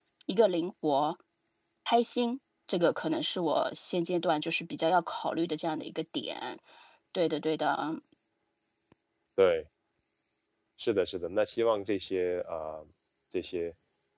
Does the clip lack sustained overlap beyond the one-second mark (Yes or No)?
Yes